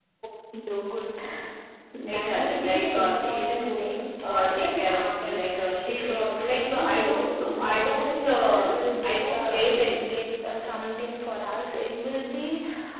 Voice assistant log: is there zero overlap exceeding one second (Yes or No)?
No